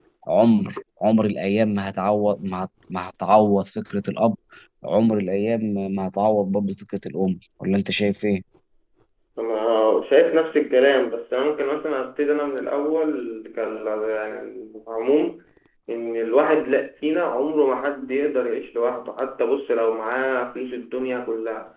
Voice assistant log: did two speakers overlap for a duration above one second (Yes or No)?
No